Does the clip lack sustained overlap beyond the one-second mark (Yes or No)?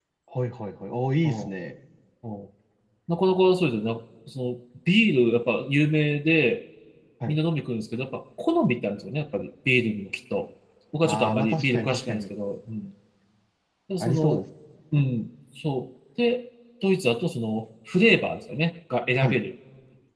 No